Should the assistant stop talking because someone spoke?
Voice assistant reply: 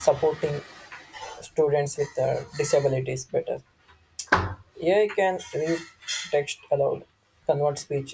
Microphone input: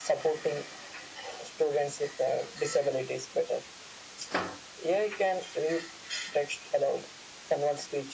No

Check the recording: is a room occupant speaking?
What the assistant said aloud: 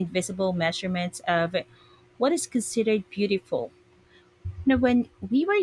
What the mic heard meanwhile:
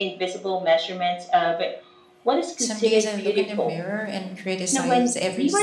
Yes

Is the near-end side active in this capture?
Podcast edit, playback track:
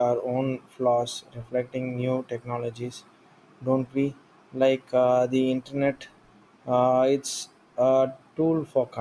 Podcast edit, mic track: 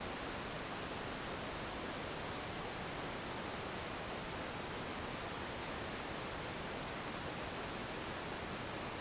No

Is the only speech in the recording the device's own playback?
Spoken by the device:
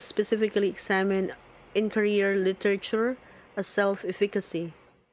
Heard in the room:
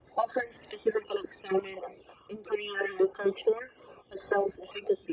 Yes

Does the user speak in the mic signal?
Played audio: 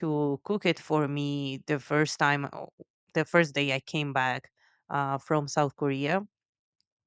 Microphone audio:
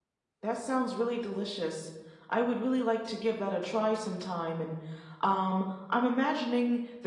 Yes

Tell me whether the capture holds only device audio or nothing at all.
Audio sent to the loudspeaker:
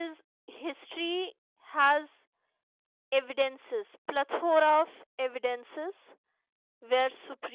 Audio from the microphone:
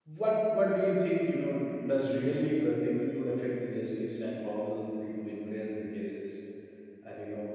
No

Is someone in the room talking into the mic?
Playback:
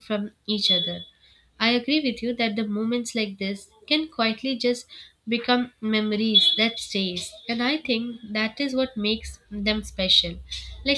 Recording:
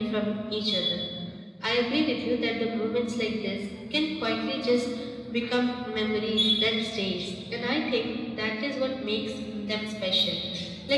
No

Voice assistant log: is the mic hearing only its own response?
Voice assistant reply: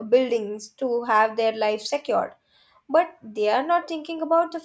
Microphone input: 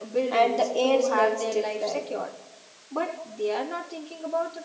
No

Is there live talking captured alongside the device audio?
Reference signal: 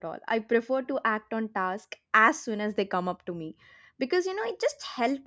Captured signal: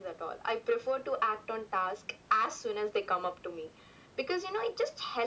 No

